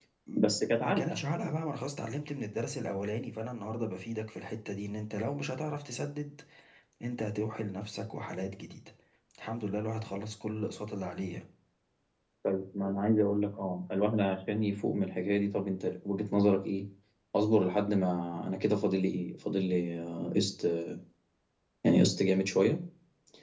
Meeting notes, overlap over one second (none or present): none